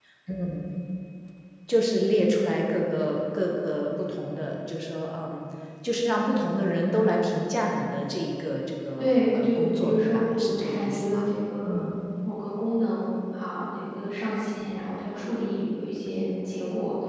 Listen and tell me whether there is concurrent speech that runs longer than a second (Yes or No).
Yes